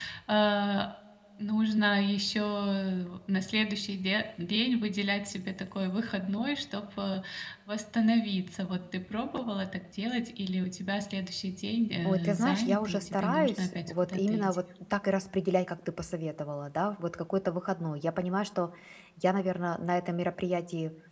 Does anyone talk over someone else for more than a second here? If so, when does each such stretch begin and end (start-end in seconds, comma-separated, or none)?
12.1-14.6